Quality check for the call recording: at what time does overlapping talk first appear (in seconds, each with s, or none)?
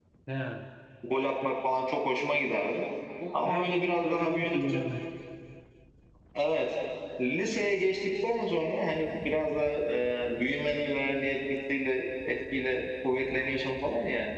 3.3 s